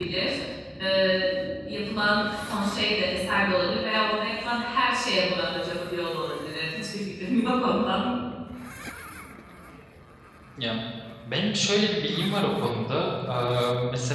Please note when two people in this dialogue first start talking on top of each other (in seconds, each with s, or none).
none